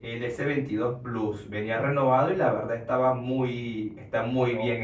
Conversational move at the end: taking over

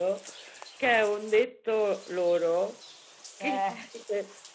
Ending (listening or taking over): listening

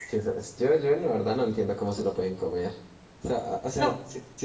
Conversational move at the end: listening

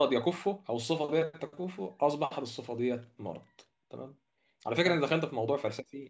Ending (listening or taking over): listening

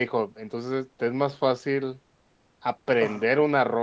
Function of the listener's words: listening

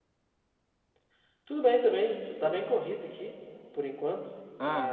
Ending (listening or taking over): listening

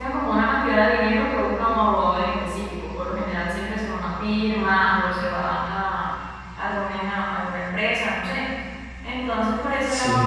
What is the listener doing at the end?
listening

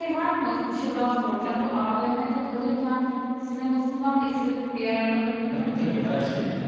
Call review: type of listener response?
taking over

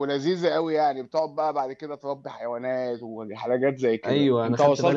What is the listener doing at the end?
taking over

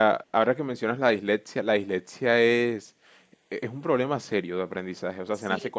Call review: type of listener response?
taking over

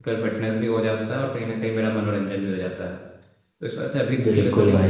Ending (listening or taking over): taking over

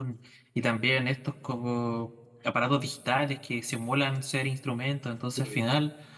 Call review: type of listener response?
listening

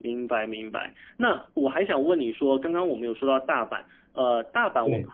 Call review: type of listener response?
listening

